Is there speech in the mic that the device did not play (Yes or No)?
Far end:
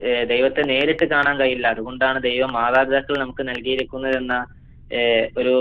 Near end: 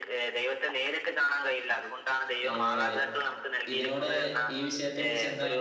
Yes